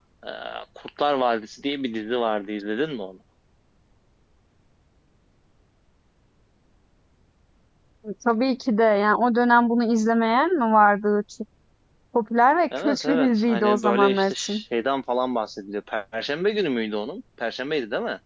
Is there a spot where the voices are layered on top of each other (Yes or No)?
Yes